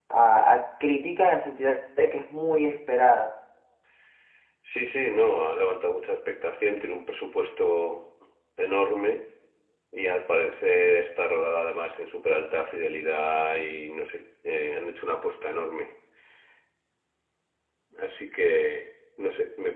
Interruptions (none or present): none